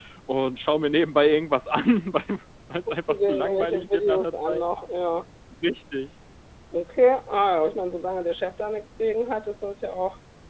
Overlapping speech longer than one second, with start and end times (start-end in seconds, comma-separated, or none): 2.9-4.6